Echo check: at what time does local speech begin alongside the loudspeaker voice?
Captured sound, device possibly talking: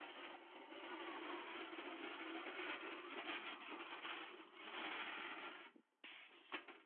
none

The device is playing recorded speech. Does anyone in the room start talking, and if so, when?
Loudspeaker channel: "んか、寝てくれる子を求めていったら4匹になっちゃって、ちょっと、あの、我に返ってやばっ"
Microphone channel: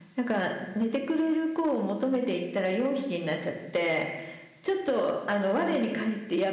none

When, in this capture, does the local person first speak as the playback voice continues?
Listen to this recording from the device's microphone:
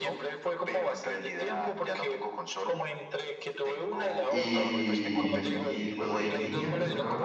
4.3 s

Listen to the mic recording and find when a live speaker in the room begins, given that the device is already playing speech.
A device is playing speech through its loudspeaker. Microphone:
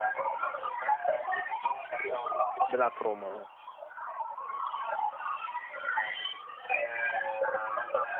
2.7 s

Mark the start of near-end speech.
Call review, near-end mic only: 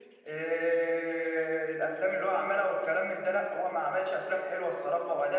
none

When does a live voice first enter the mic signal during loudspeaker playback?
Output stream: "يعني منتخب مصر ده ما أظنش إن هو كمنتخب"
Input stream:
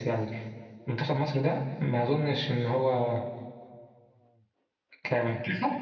none

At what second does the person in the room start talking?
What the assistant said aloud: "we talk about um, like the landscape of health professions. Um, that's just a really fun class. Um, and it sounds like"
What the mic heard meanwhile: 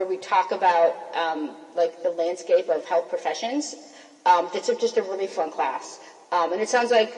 none

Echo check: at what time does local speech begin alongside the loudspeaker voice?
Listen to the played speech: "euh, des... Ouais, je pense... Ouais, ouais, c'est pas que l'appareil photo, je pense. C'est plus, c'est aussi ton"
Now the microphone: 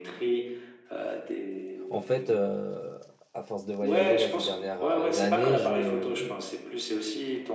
1.9 s

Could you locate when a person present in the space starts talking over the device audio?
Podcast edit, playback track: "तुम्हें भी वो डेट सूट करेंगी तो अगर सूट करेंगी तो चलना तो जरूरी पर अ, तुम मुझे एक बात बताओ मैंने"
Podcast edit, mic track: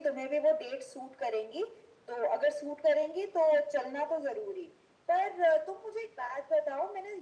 none

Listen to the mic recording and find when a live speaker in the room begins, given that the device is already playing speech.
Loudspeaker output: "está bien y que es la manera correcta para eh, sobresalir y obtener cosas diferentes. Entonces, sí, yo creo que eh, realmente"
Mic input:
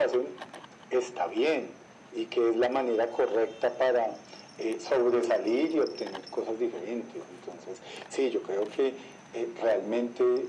none

